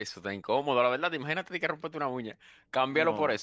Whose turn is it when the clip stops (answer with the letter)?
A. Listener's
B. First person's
B